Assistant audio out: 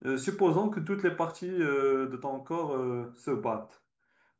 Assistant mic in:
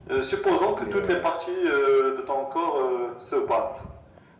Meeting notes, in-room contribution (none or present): present